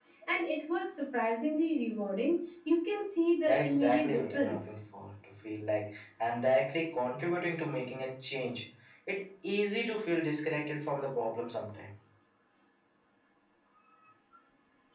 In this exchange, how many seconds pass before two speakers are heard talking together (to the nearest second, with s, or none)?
3 s